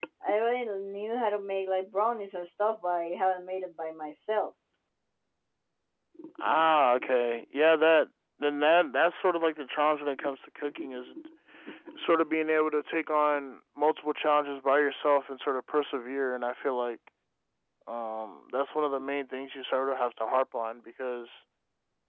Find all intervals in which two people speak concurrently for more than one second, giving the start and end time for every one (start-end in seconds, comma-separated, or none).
none